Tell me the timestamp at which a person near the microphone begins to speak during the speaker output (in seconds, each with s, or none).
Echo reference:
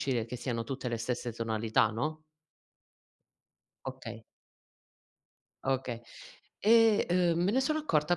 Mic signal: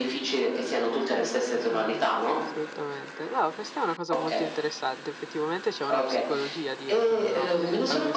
1.0 s